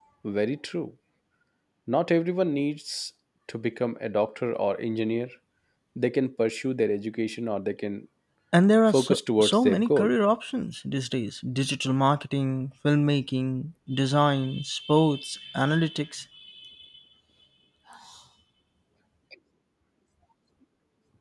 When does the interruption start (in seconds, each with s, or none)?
8.9 s